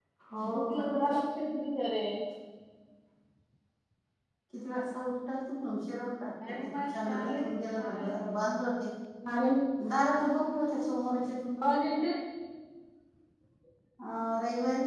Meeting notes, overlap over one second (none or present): present